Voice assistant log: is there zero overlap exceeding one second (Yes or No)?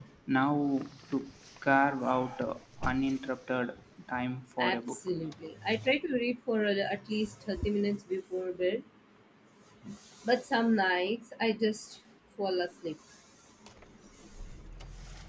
Yes